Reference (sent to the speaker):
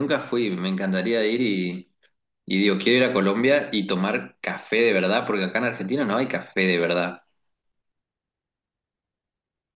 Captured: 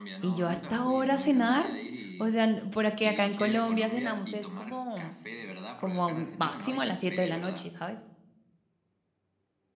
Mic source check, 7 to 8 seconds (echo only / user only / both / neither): both